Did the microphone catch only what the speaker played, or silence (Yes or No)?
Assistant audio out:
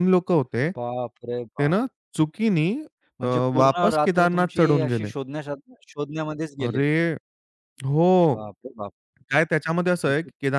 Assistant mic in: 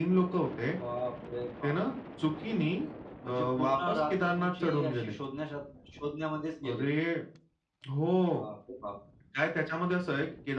Yes